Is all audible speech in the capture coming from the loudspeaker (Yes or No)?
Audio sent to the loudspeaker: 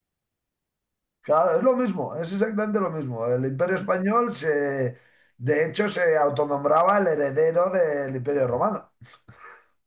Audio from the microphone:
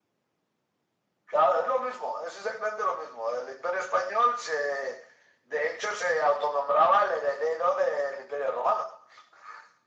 Yes